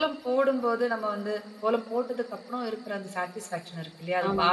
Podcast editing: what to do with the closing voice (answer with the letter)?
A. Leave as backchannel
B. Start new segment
A